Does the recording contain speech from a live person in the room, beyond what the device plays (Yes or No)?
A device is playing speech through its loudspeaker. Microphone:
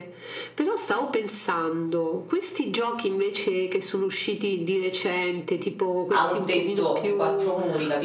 Yes